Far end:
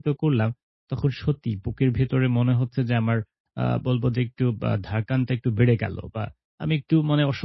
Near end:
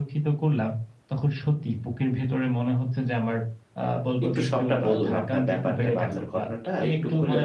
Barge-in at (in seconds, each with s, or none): 4.2 s